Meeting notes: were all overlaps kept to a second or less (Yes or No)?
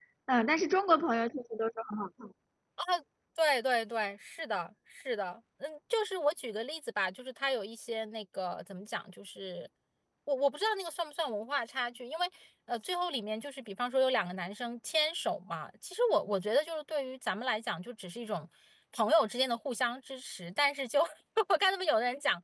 Yes